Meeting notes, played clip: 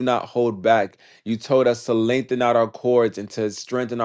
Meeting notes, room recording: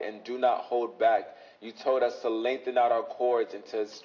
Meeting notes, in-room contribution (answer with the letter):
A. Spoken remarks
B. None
B